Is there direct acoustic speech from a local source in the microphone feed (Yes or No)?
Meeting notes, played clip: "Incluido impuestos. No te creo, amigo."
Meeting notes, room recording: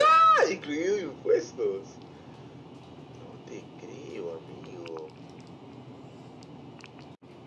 No